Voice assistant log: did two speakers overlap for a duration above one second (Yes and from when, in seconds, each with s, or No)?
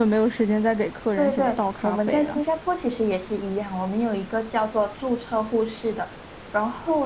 Yes, from 1.2 s